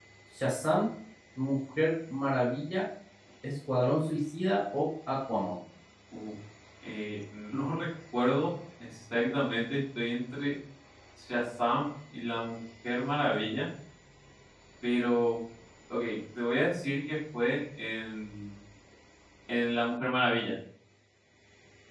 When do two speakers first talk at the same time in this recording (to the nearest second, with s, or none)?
none